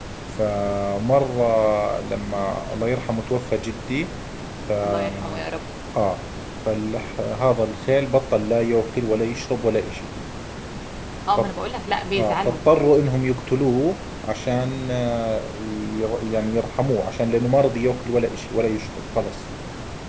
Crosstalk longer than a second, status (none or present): none